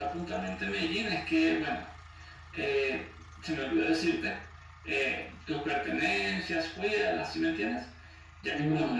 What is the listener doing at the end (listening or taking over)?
listening